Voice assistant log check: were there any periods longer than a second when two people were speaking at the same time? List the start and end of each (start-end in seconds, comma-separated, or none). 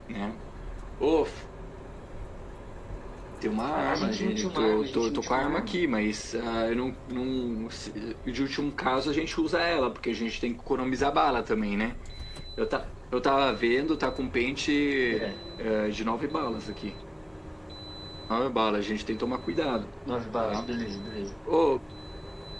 3.8-5.8